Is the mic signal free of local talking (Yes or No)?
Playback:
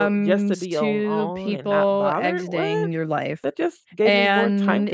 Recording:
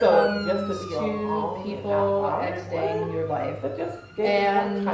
Yes